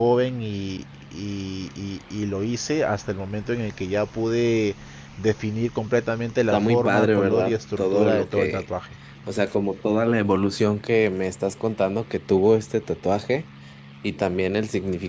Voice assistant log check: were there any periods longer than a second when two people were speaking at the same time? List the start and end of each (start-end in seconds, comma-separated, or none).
6.5-8.7